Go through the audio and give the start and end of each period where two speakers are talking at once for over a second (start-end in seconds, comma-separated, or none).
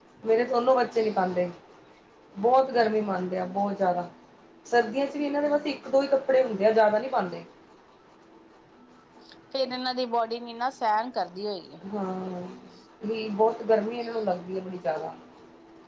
none